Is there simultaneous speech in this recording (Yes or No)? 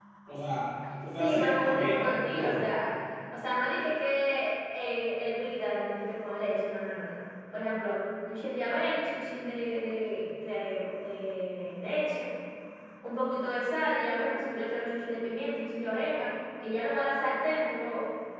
Yes